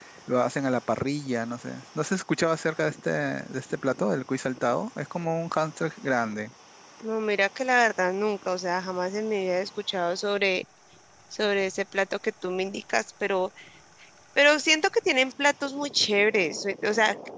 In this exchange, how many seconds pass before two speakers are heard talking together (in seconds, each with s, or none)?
none